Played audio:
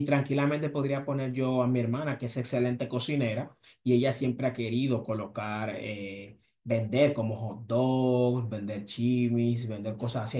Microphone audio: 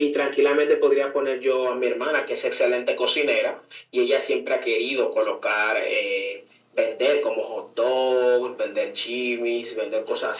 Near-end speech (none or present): none